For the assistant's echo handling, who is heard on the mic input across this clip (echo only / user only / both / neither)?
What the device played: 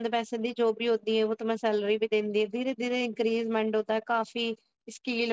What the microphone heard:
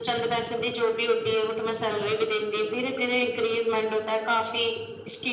echo only